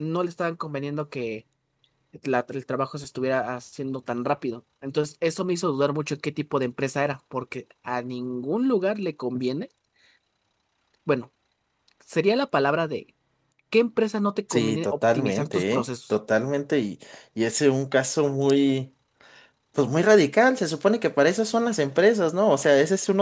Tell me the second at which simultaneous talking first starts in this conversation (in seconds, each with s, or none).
14.5 s